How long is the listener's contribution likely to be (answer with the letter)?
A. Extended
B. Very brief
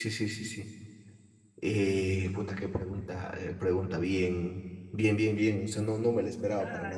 A